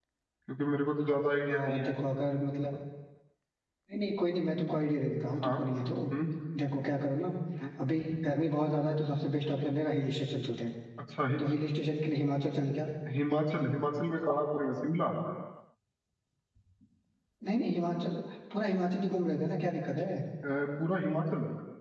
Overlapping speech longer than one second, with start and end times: none

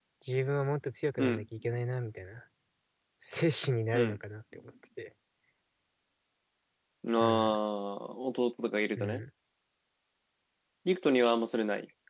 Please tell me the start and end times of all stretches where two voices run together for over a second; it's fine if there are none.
none

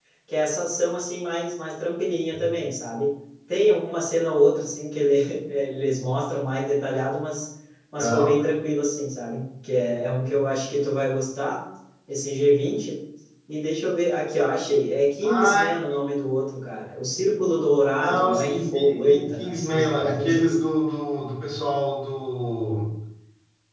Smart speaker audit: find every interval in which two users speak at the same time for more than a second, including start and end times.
18.0-20.6

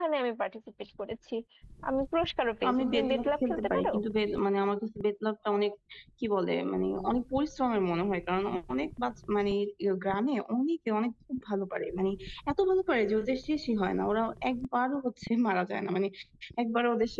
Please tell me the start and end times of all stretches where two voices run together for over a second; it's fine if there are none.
2.7-3.9

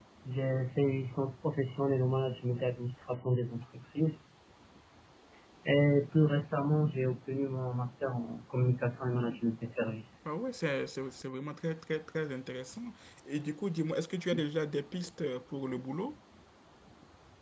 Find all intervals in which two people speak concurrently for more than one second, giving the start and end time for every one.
none

